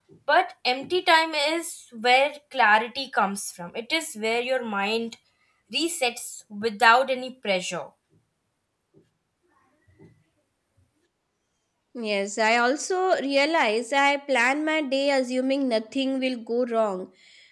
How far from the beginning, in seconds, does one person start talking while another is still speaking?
none

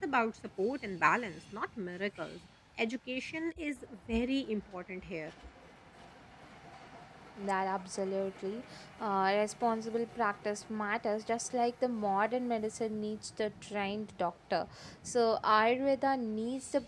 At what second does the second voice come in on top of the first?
none

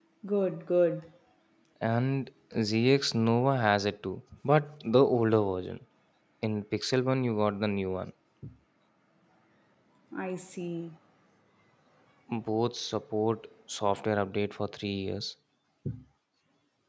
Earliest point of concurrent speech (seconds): none

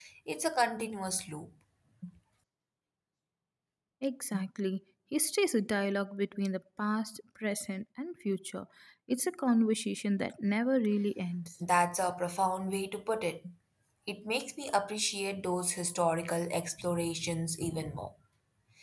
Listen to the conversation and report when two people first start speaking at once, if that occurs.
none

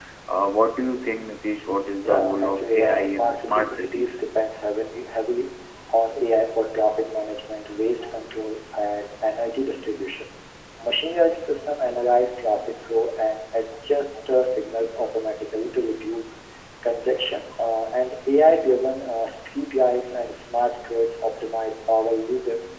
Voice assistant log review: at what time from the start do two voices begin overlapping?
2.0 s

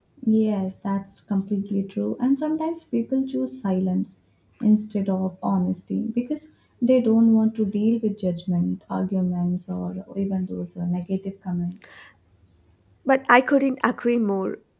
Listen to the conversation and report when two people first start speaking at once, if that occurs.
none

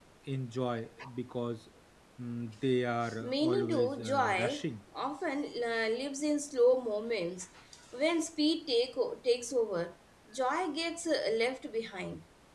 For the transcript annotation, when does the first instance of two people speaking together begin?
3.1 s

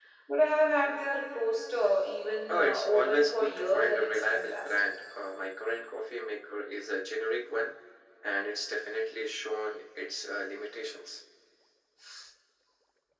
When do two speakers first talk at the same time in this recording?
2.5 s

